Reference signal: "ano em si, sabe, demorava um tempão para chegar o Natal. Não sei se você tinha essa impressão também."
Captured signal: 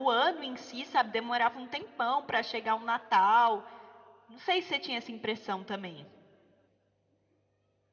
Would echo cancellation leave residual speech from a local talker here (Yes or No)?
No